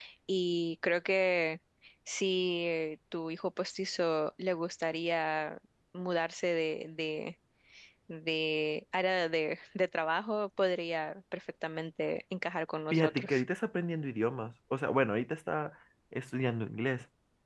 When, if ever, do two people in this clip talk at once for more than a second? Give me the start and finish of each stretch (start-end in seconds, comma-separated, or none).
none